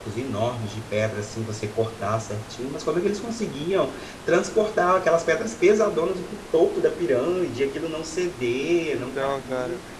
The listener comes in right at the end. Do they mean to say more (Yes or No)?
No